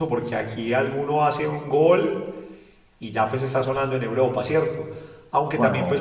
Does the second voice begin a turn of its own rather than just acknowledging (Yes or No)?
No